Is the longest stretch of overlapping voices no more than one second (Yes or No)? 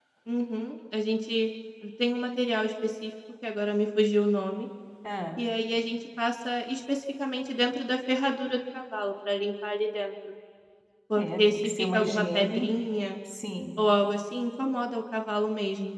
No